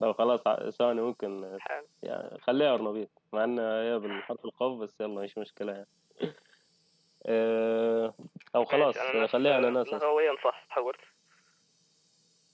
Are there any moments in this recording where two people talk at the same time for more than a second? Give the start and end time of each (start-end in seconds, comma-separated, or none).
8.7-10.0